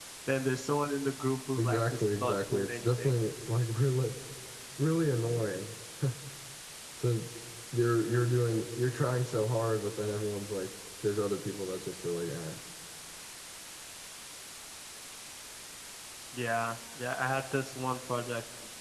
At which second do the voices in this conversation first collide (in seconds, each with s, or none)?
1.6 s